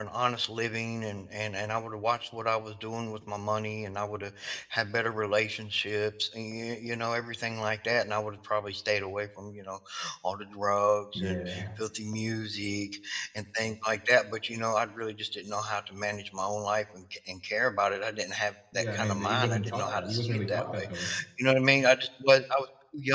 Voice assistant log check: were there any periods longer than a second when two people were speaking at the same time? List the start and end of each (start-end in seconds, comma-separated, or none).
18.7-20.8